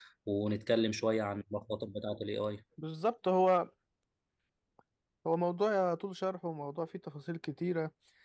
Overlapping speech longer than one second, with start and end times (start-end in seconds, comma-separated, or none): none